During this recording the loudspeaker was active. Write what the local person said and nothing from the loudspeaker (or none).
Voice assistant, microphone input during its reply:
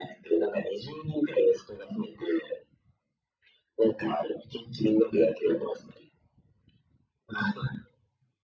none